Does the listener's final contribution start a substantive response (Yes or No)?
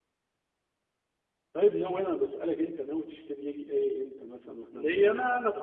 Yes